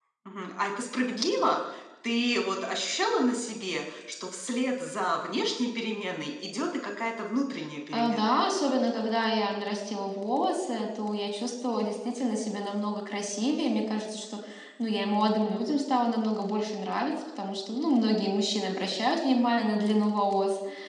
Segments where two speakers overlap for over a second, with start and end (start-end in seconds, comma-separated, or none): none